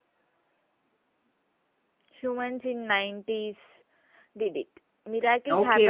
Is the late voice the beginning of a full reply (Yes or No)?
Yes